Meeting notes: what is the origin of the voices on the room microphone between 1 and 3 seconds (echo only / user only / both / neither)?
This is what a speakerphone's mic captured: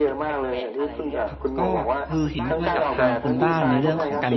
both